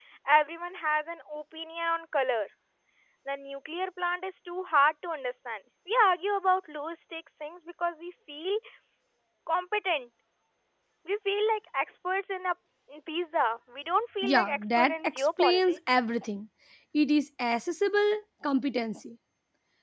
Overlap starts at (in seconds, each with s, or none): 14.2 s